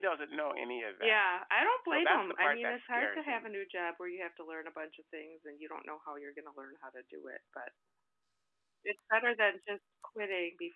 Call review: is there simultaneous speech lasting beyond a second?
Yes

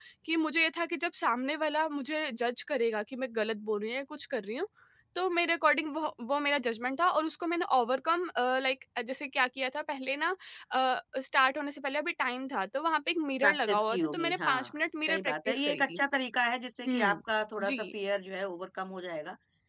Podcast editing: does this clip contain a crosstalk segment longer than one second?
Yes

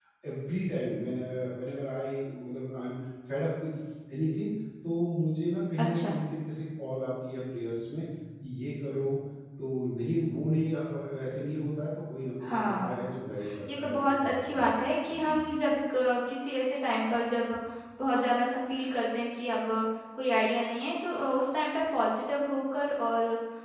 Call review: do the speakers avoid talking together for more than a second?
No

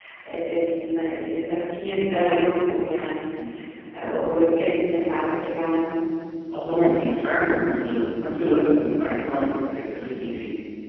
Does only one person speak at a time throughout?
Yes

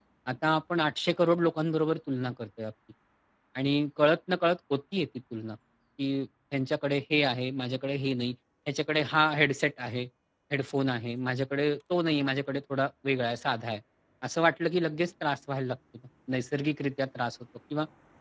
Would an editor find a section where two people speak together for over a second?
No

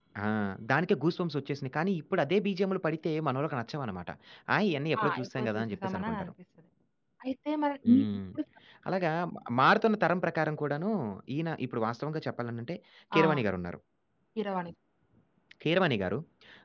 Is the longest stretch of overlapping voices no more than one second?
No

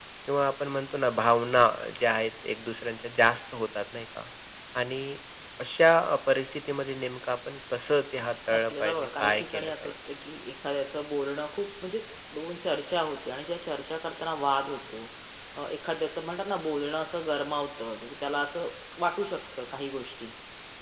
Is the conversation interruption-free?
No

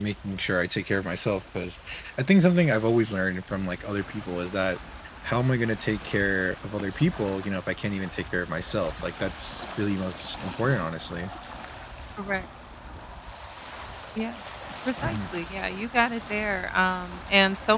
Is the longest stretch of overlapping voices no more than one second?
Yes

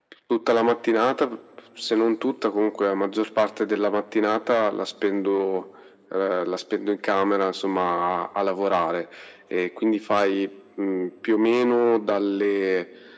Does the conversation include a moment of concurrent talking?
No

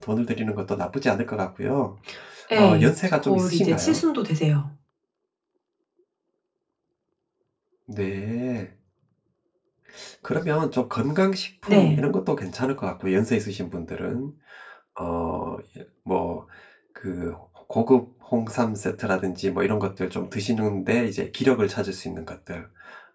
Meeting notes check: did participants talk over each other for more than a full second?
Yes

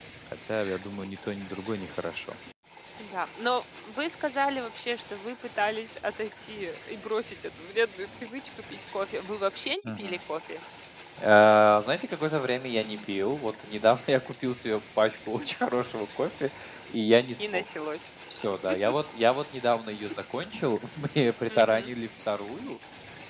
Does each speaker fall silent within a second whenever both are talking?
Yes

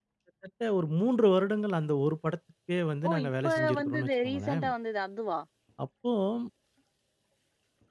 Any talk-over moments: Yes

